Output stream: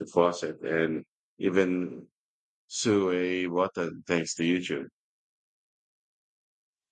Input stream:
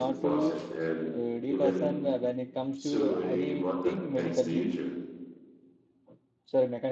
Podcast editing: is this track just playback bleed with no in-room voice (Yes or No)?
No